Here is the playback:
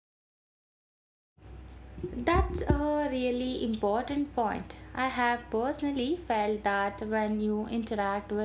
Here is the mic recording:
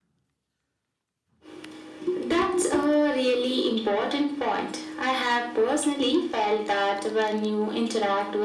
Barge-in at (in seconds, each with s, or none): none